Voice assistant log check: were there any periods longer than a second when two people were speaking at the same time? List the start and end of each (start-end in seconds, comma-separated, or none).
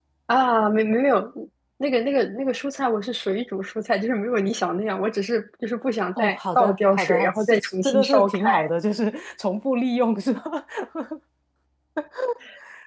6.2-8.7